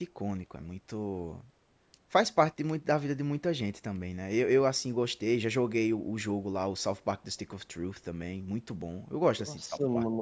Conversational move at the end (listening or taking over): taking over